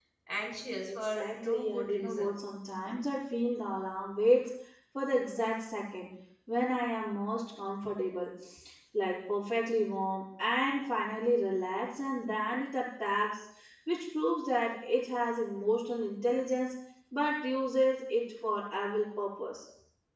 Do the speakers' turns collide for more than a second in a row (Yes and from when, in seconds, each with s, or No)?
Yes, from 0.9 s